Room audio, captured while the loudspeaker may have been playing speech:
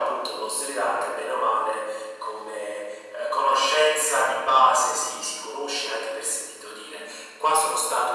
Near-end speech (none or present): none